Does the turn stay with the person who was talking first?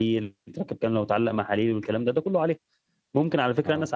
Yes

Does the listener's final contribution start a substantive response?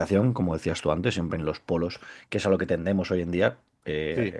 No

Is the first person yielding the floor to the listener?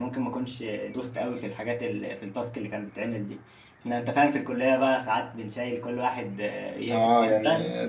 Yes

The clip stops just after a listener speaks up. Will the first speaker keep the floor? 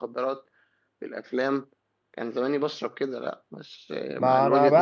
No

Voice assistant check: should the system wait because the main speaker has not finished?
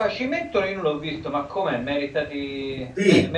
No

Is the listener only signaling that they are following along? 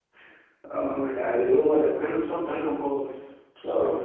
No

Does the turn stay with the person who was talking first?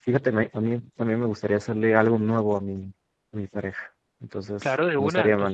No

